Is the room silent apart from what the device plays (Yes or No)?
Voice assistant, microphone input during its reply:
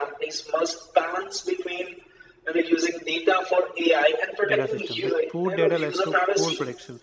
No